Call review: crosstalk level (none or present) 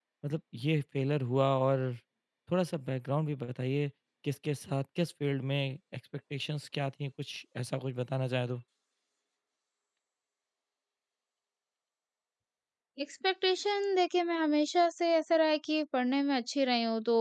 none